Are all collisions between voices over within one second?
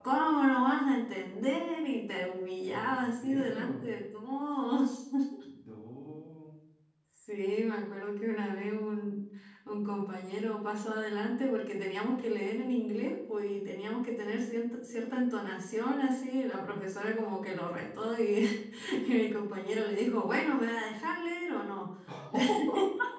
No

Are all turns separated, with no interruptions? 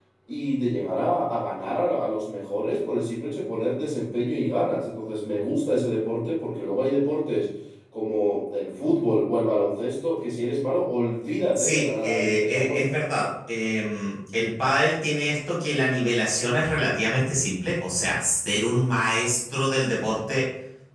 No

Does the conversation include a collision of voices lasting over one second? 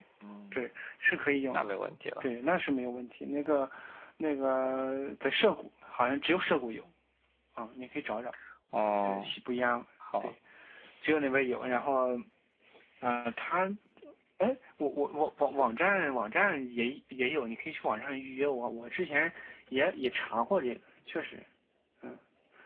No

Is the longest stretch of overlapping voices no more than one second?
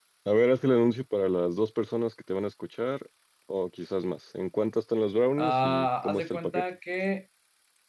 No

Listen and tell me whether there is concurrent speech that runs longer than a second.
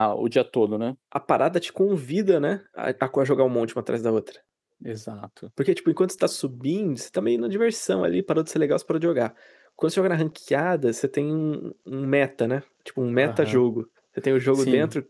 No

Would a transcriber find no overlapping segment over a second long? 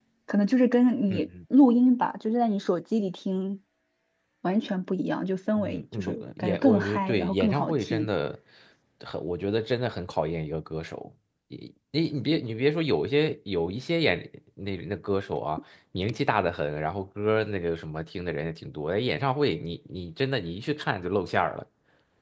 No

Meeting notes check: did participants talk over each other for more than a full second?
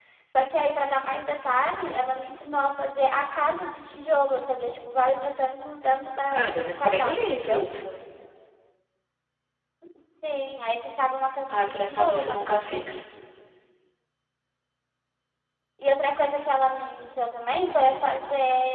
Yes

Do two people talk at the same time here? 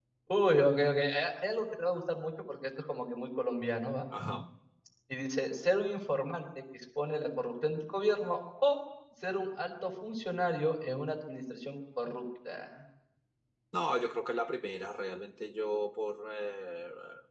No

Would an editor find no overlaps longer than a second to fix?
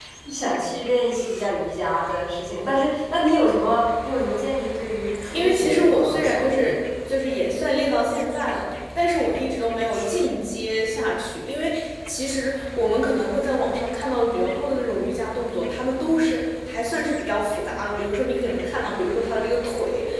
No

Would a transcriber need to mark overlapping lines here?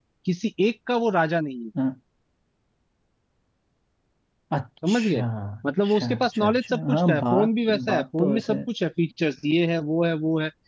Yes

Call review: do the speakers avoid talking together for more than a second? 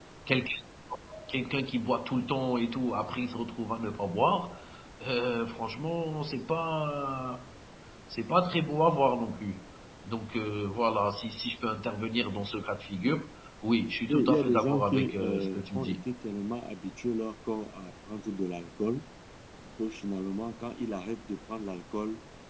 No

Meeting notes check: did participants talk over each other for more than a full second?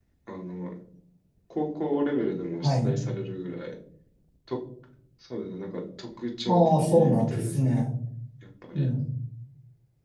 Yes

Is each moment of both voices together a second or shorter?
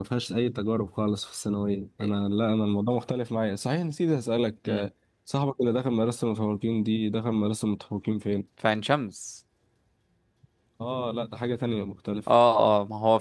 Yes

